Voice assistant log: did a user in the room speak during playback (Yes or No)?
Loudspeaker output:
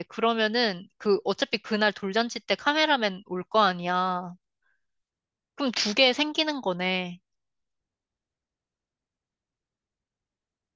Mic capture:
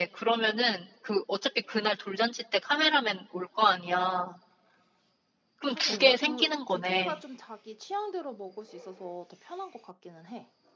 Yes